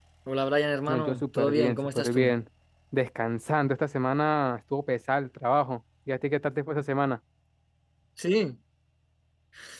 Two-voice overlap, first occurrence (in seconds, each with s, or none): 0.9 s